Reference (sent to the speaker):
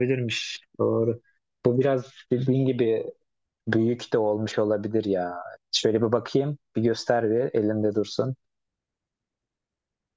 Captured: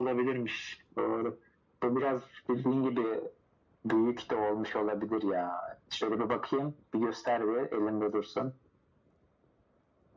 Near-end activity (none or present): none